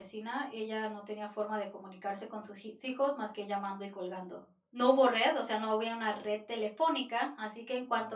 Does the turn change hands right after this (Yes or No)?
No